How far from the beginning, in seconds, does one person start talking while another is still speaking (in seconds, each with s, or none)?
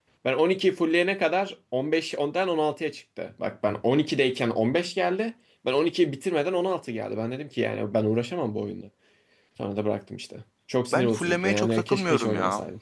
10.9 s